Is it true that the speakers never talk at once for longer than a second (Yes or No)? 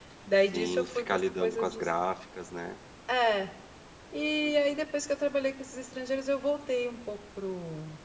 No